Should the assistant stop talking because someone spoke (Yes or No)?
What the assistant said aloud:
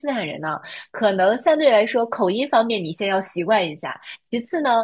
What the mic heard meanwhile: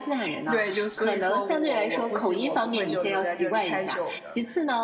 Yes